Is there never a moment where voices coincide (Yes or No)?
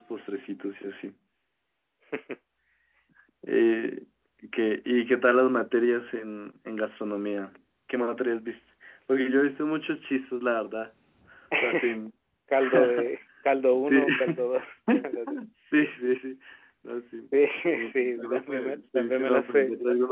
No